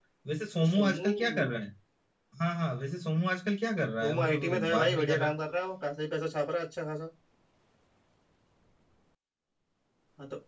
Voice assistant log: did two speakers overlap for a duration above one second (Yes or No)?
Yes